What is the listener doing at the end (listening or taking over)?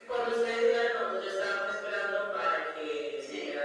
listening